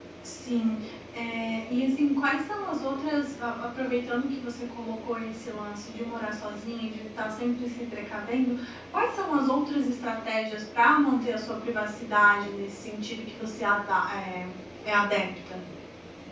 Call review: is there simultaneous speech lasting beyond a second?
No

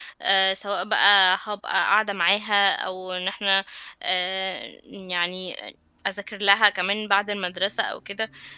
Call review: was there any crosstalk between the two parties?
No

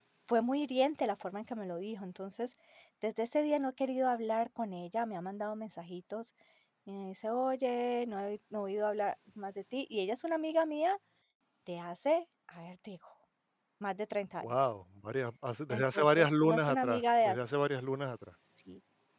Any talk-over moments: Yes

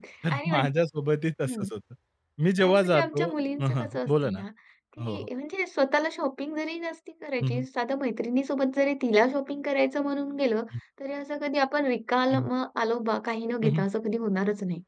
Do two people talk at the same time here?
Yes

